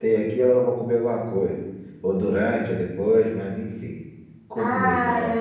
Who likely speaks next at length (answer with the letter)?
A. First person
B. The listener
B